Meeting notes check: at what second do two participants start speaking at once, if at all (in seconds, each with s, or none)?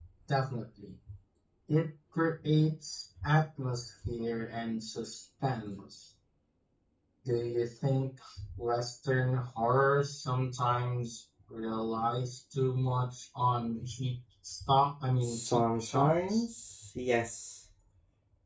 15.2 s